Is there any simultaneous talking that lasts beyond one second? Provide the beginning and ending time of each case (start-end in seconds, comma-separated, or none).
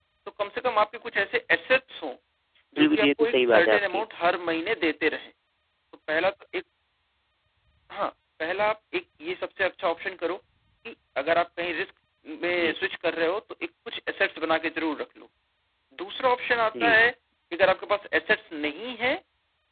2.8-4.0